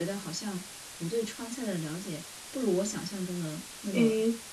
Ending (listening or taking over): taking over